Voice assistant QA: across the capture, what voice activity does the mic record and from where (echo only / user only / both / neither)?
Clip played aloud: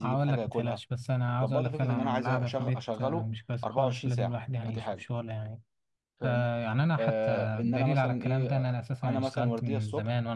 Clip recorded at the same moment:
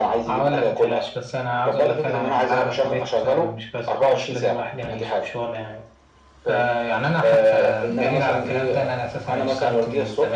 echo only